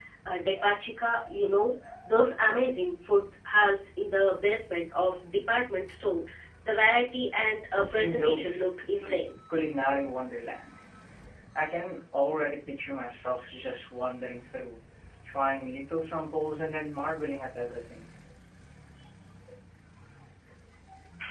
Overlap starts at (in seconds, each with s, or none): 7.8 s